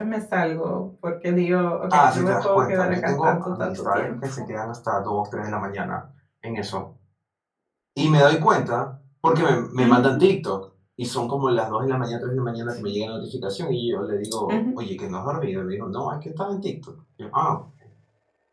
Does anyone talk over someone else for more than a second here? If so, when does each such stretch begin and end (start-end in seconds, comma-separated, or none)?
2.0-4.1